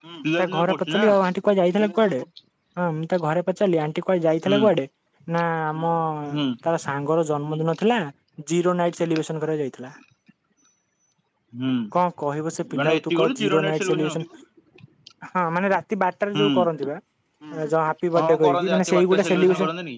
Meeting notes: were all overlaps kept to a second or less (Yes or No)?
No